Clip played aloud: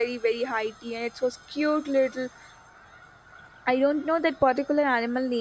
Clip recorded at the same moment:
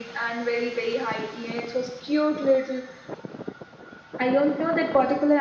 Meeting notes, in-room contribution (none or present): none